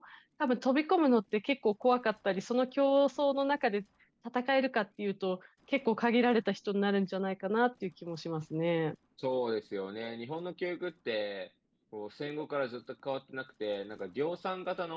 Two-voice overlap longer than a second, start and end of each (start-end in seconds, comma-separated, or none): none